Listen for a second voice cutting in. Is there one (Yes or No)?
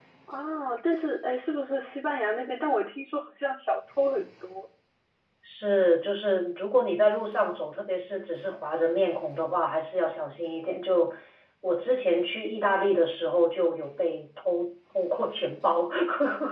No